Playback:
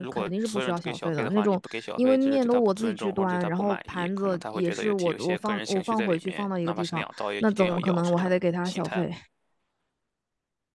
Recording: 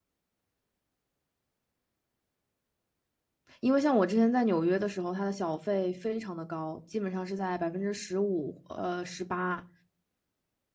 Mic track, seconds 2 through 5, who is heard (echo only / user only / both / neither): user only